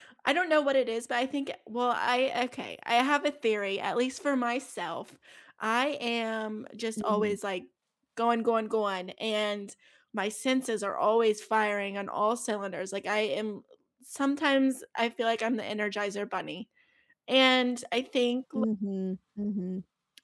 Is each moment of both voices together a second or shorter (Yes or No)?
Yes